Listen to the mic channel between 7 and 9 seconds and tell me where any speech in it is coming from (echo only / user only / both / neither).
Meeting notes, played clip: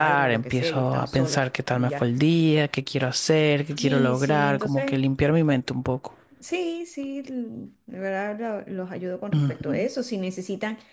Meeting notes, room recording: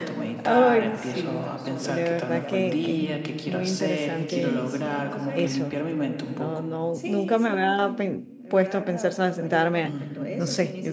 both